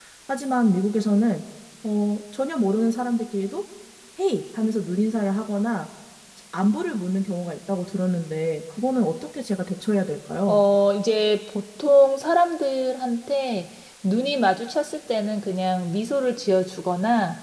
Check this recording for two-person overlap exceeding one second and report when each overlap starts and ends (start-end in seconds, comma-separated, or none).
none